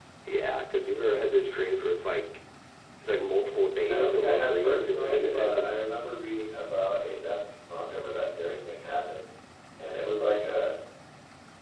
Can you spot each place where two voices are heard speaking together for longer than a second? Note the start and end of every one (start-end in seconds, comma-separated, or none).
3.9-5.7